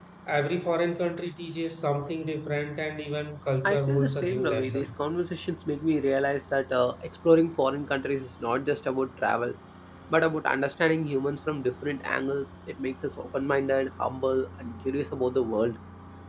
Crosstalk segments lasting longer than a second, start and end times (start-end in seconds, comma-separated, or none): 3.6-4.9